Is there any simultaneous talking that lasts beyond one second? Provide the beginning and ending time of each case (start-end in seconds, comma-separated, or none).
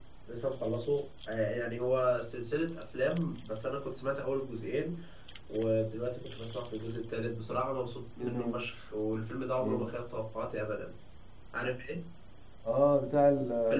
none